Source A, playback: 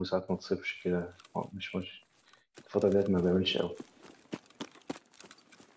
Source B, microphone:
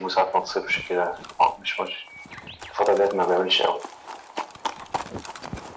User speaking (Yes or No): No